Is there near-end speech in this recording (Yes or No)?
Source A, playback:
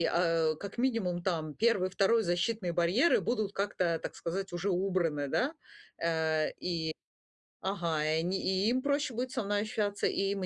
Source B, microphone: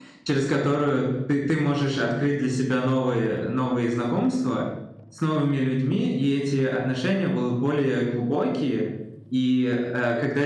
Yes